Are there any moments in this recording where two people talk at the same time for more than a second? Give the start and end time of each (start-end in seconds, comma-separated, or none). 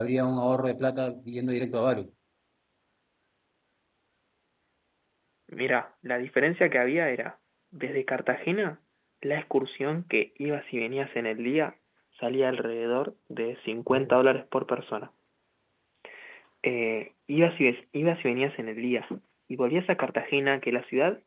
none